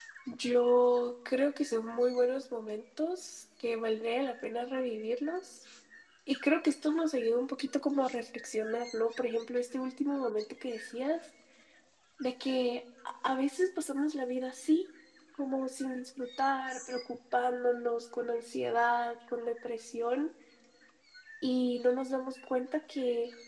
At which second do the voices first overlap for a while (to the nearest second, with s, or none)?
none